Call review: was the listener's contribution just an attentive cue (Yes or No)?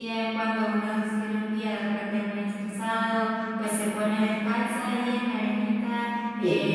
Yes